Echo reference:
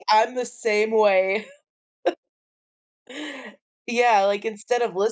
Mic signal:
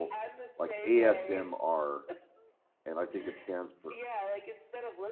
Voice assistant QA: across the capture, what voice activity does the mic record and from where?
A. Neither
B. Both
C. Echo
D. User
B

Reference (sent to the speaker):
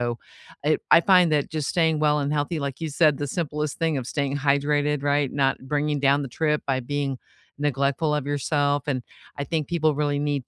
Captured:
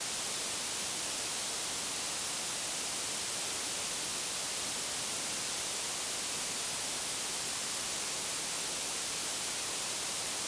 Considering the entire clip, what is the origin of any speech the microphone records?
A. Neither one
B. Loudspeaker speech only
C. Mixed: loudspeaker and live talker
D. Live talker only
A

